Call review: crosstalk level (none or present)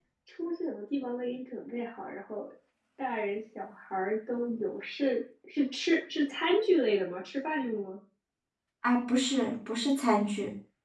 none